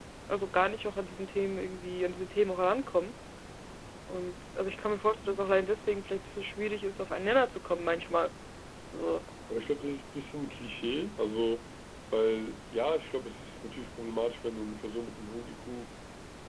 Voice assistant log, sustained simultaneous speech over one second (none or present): none